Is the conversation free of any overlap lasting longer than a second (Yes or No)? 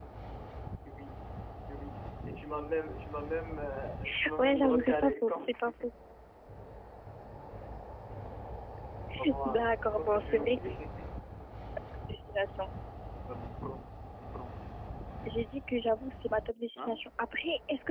No